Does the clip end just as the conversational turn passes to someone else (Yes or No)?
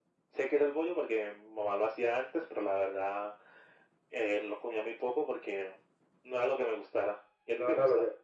Yes